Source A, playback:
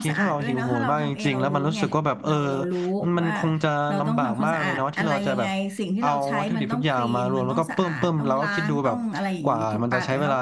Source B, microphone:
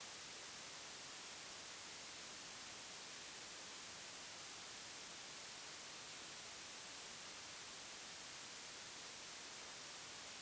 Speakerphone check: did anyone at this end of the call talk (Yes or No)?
No